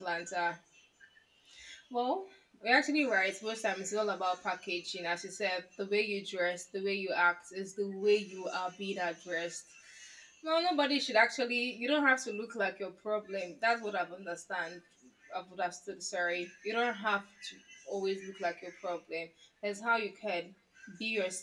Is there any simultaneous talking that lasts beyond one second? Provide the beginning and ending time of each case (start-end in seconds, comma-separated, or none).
none